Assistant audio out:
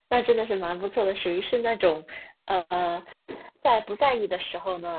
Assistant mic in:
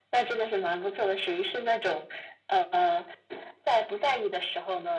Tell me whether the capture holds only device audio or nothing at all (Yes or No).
Yes